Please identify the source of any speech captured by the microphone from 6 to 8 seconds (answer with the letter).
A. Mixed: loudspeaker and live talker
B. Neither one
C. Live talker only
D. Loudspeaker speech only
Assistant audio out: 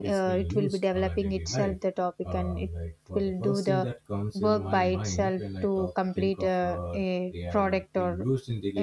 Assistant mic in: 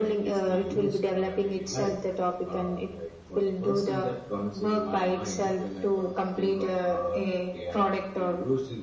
D